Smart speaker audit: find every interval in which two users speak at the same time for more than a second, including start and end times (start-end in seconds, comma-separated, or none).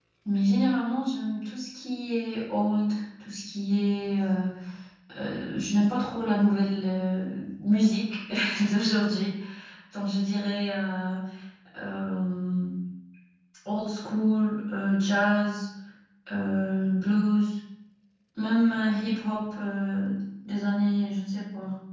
none